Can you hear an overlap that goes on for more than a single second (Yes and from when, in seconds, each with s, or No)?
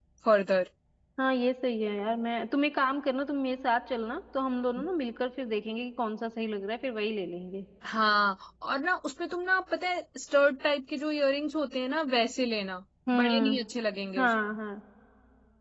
No